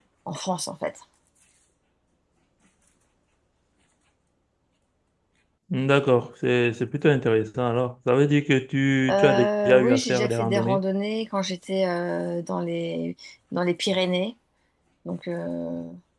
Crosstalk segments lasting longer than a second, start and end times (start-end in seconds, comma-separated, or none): 9.1-10.8